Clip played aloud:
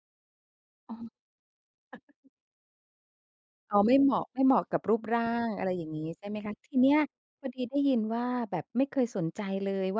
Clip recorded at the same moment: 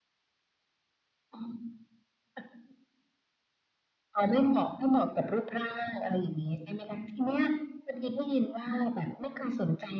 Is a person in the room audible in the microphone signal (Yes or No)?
No